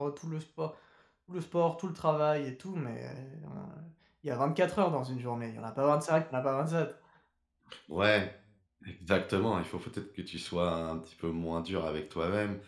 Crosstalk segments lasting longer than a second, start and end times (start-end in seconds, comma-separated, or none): none